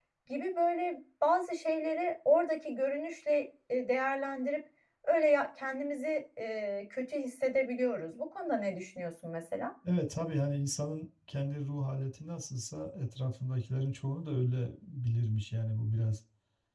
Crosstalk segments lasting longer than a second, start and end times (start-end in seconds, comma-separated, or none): none